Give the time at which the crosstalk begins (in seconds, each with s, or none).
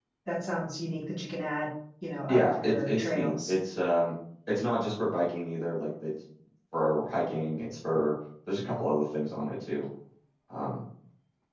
2.3 s